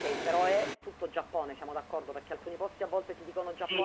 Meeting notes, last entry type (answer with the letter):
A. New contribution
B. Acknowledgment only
A